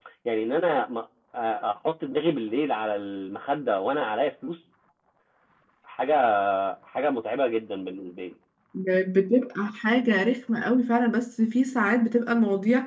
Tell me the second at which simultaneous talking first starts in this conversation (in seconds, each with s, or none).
none